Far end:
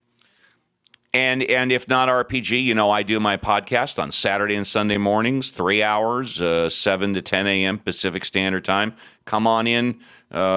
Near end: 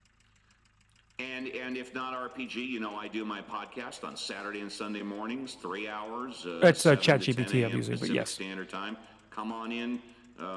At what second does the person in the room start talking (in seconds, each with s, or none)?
6.6 s